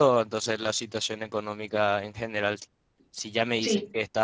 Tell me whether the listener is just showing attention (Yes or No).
Yes